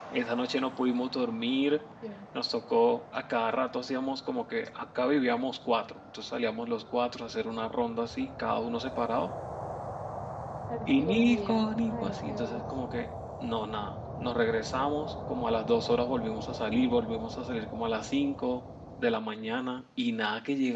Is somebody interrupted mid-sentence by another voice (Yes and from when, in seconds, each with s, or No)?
Yes, from 10.9 s